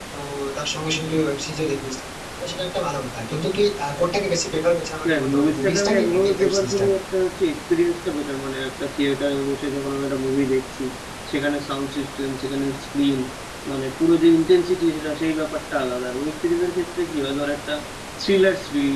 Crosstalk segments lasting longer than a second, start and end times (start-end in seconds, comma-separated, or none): 5.1-6.9